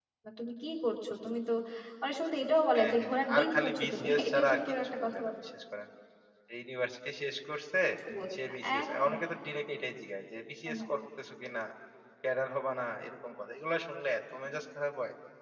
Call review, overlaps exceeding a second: present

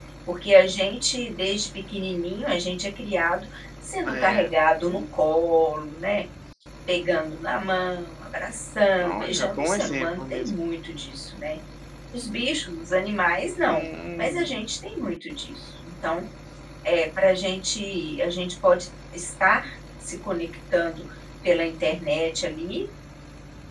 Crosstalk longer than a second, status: present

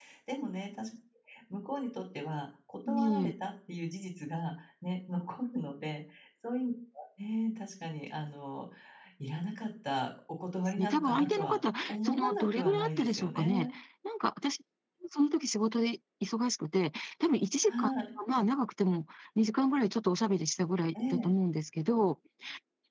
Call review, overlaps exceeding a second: present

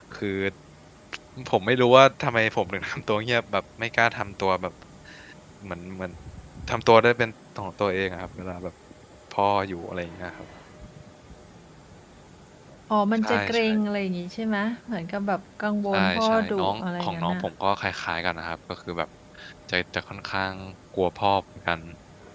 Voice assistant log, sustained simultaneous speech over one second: present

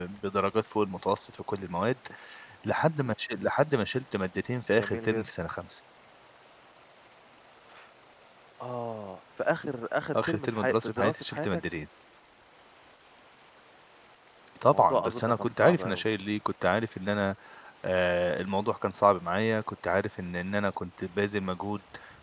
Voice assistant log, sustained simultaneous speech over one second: present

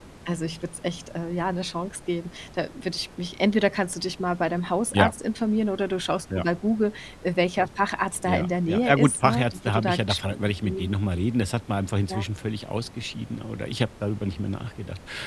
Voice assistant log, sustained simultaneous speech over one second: present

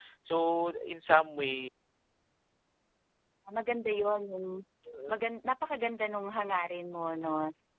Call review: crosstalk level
none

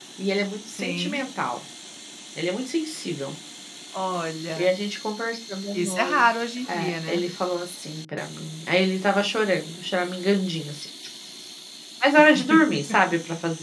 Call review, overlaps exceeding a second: none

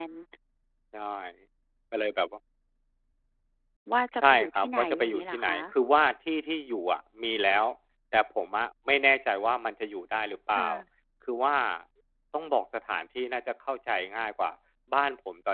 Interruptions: present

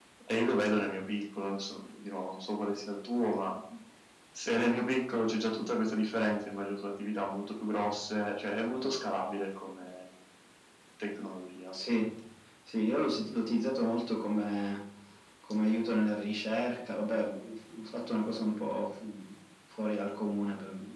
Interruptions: none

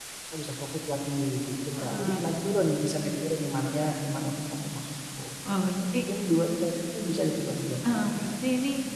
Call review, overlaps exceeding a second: none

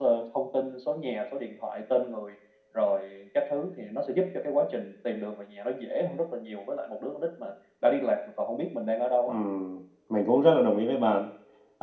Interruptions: none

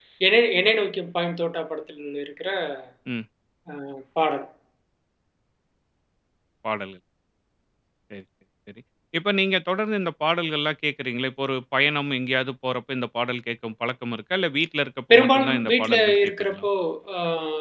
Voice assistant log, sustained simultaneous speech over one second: present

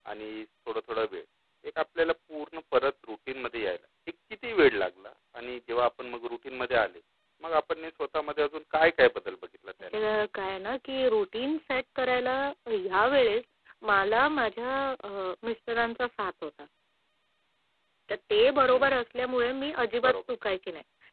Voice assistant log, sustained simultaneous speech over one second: none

